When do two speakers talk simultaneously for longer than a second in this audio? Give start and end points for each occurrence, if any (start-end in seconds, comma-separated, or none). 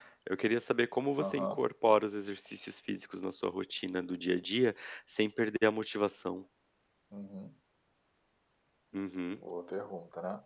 none